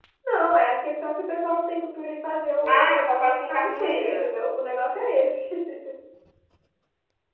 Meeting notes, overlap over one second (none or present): present